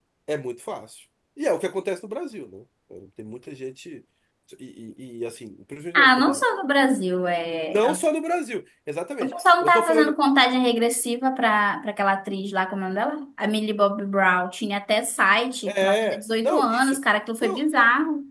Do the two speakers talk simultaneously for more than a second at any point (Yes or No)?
Yes